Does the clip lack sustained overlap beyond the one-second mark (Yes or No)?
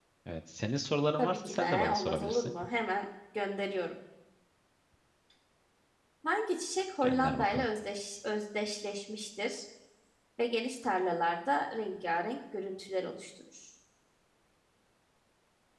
No